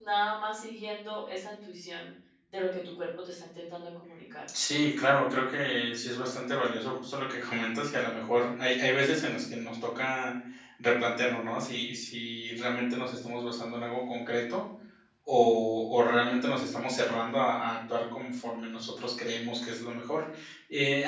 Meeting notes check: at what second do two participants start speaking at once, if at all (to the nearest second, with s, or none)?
none